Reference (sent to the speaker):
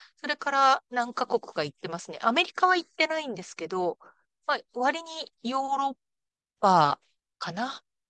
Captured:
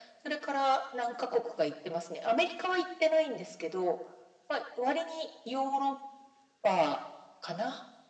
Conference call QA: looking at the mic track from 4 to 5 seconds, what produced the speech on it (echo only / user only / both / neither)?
echo only